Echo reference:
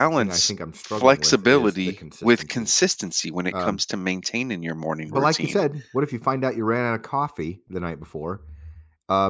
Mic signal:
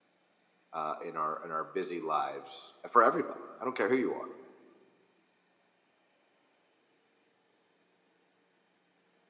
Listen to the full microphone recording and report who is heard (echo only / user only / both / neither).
user only